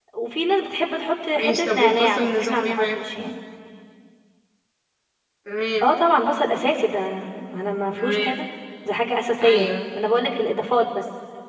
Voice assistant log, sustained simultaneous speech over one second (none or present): present